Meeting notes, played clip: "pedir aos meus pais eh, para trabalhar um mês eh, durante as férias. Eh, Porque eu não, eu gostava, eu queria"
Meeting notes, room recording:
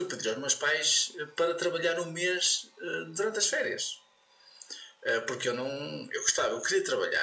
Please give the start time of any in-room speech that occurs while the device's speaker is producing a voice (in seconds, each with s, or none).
none